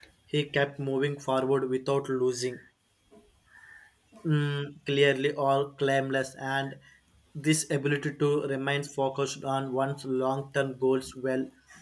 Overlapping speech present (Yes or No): No